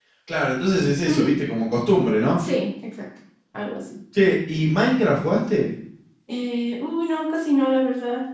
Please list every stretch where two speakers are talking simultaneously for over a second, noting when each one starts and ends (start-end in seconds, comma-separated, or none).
none